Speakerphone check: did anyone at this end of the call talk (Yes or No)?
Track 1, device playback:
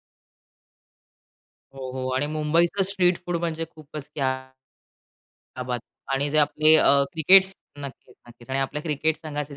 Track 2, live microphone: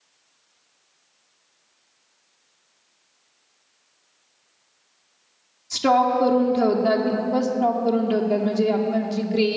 Yes